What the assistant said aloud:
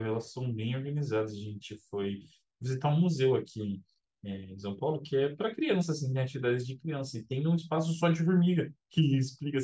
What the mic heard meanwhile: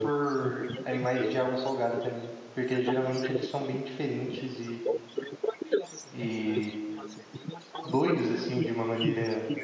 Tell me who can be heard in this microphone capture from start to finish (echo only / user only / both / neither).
both